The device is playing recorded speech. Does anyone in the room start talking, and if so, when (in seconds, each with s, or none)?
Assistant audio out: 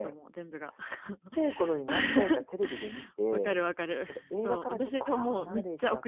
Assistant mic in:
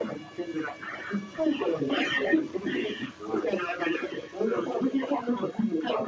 none